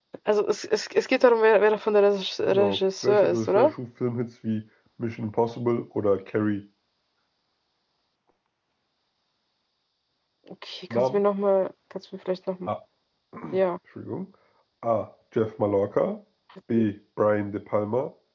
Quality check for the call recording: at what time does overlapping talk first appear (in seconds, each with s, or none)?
2.5 s